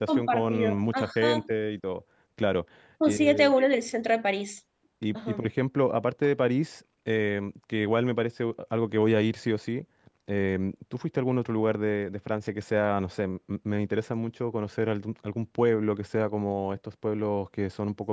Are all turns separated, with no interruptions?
No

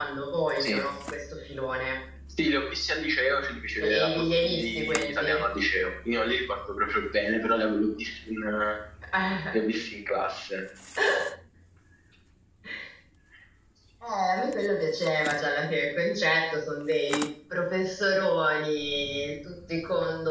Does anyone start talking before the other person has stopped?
Yes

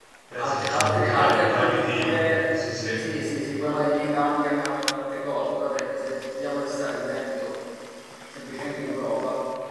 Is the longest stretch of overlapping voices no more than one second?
No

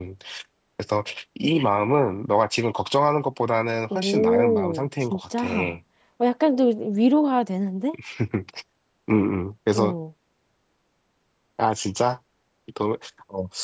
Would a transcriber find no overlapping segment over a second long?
No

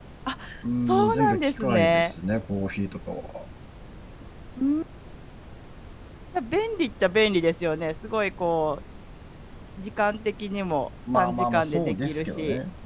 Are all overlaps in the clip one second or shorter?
No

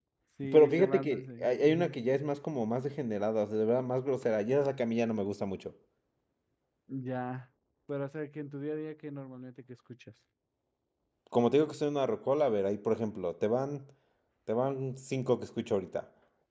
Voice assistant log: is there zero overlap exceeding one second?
No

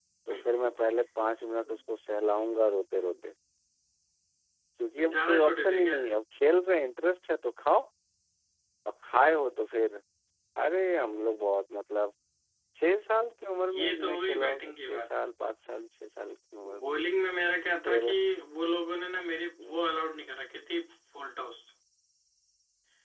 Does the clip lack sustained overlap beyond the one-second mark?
No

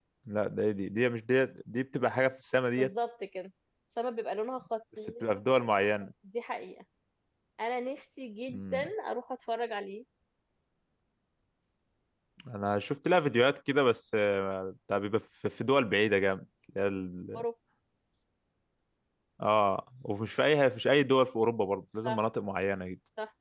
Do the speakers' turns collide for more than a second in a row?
No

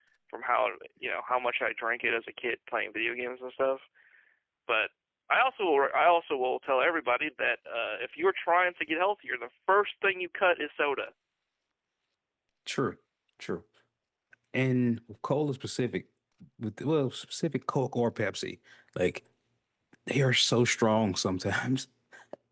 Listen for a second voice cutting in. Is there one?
No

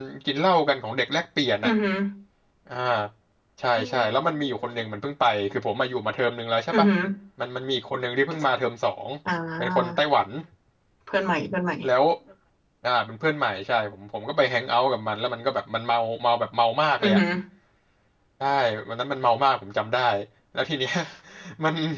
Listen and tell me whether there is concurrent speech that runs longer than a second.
No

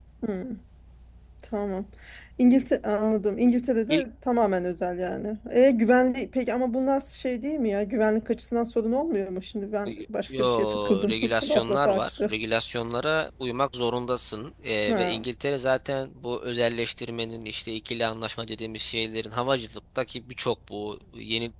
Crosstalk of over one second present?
Yes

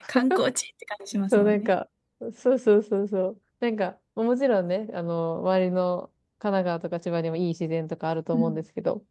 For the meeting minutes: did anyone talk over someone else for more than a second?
No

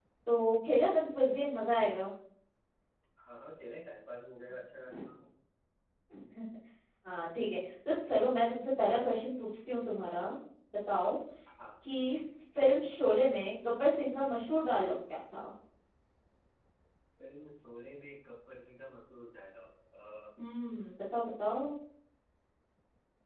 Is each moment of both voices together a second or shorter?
Yes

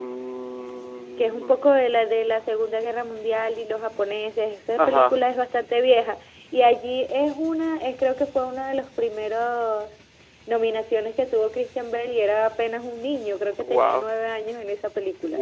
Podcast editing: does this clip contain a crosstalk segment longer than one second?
No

